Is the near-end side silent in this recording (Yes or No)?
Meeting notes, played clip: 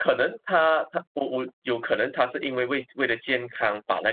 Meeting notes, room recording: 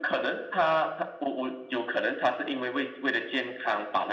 Yes